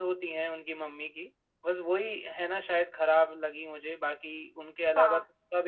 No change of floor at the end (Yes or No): Yes